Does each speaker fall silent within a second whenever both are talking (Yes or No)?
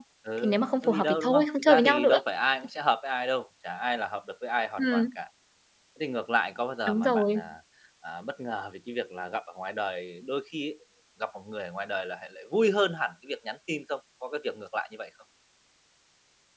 No